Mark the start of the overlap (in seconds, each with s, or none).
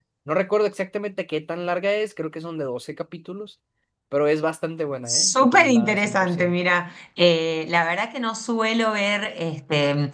5.1 s